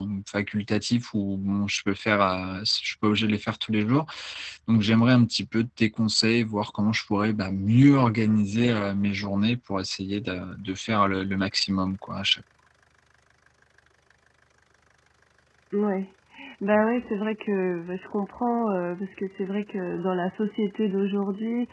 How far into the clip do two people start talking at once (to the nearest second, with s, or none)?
none